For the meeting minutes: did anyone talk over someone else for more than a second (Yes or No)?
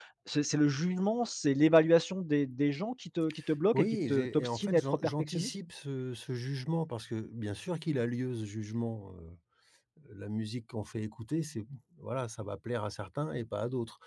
Yes